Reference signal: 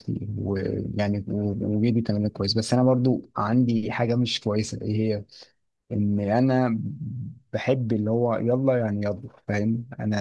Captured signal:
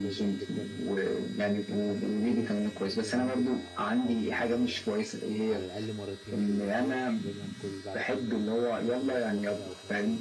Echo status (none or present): present